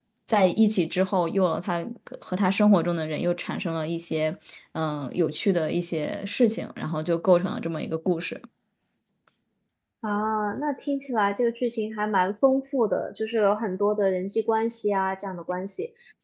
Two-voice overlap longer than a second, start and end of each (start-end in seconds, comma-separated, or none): none